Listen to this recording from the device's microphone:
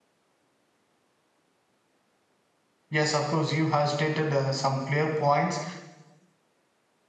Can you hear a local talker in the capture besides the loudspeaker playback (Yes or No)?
Yes